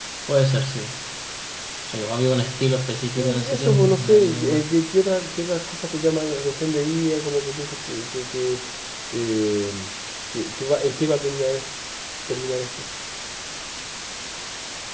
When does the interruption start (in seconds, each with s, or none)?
3.2 s